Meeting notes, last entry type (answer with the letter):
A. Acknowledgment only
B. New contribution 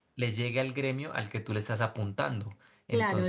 B